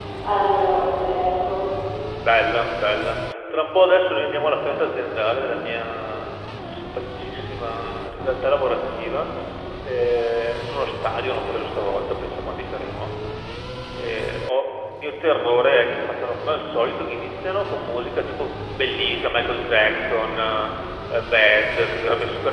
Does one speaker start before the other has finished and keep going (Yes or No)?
No